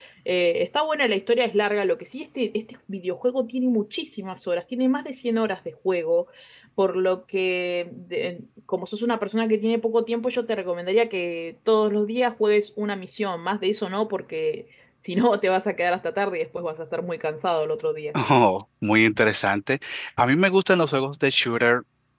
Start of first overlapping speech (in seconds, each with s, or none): none